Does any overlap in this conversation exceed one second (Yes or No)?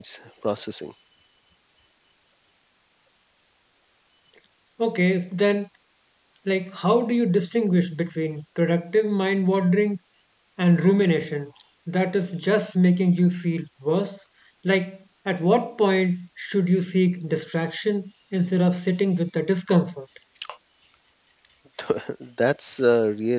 No